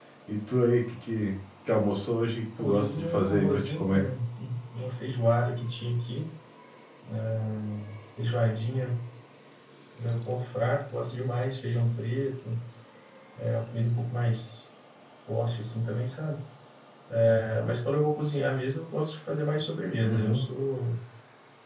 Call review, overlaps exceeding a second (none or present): present